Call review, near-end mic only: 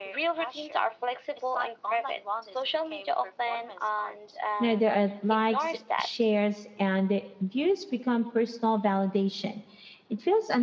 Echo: present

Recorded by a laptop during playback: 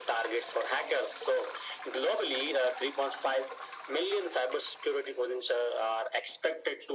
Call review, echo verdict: present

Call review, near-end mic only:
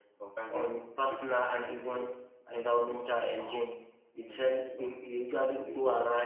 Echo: present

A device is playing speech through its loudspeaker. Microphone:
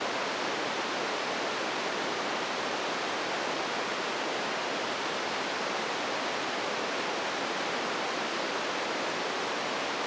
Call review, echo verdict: none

